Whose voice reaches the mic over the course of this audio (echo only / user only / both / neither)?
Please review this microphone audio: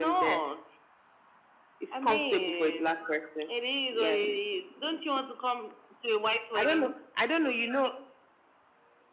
echo only